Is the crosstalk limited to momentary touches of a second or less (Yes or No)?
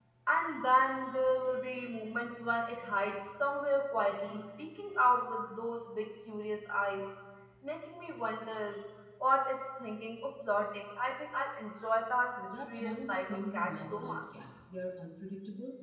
No